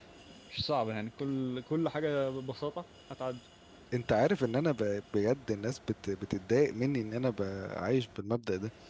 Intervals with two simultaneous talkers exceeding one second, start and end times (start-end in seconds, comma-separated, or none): none